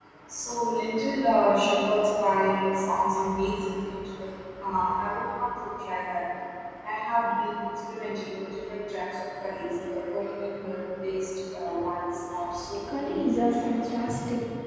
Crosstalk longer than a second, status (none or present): present